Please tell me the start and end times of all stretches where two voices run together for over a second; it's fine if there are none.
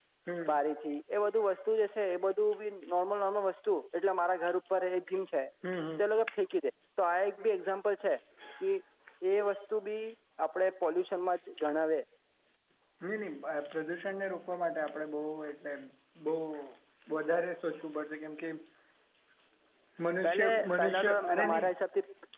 20.2-21.7

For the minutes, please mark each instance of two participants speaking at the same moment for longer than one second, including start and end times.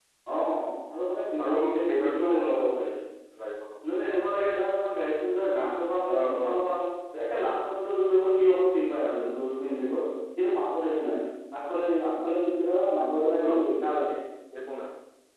1.4-2.7

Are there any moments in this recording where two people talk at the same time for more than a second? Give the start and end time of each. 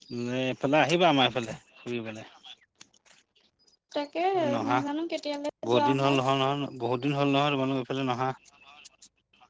none

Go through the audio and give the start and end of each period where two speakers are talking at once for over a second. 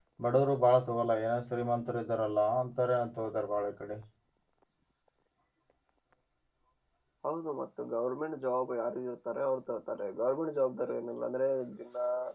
none

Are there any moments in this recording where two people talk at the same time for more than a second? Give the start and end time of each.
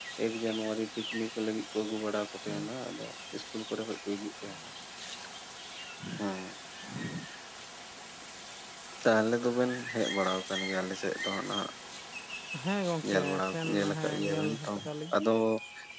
13.1-14.7

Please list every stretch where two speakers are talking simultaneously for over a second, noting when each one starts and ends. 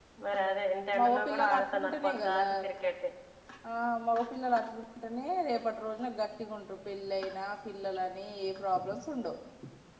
1.0-2.5

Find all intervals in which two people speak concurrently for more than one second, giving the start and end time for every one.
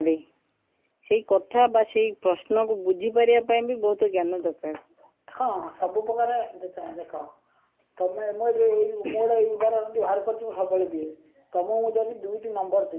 none

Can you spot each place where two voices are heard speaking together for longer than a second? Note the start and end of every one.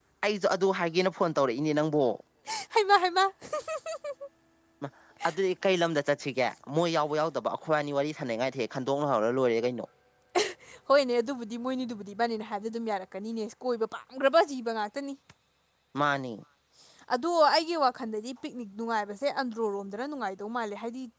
none

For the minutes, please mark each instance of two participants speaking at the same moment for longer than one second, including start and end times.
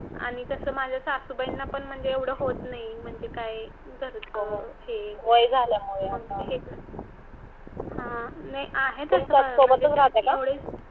9.1-10.3

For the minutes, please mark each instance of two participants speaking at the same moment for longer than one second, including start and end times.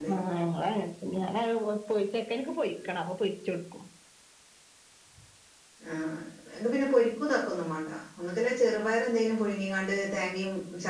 none

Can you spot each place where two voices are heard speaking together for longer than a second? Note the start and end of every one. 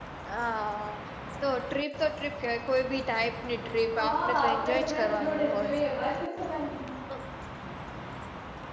4.0-5.7

